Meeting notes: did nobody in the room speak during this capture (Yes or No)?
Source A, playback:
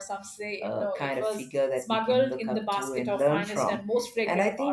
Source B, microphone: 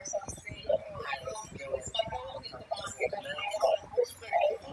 Yes